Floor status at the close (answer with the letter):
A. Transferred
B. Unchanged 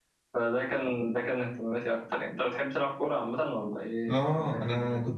A